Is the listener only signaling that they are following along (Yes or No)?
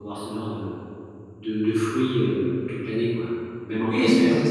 No